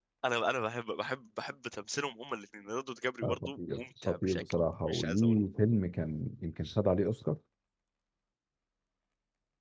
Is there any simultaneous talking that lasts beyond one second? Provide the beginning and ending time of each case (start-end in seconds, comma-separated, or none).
3.2-5.4